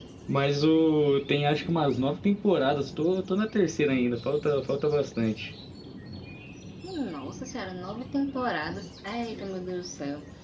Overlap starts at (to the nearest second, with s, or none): none